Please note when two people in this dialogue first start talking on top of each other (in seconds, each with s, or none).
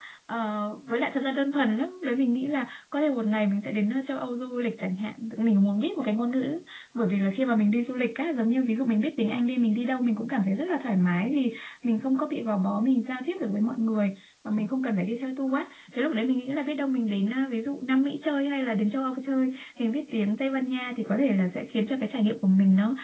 none